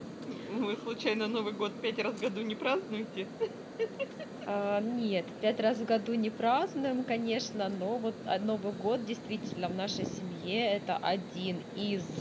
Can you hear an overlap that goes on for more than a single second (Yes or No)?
No